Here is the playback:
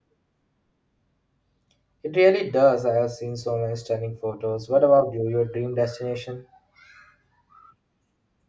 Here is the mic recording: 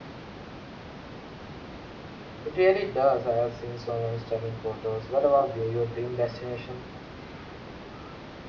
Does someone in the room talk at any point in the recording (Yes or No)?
No